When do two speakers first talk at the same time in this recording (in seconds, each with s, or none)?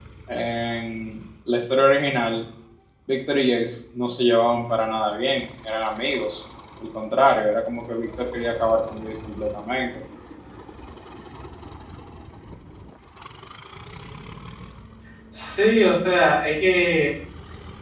none